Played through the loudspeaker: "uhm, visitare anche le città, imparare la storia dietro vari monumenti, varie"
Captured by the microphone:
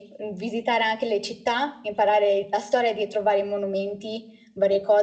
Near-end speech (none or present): none